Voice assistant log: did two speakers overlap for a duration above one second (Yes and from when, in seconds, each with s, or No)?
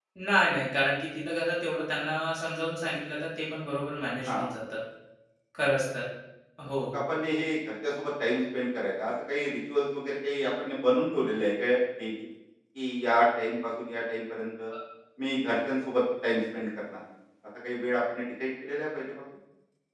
No